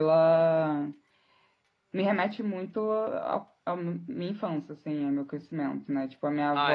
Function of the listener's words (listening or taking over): listening